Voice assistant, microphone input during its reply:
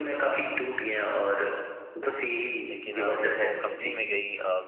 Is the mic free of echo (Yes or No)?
No